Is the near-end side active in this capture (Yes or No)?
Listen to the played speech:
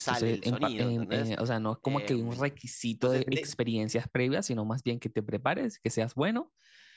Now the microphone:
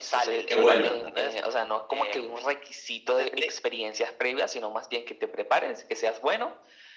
Yes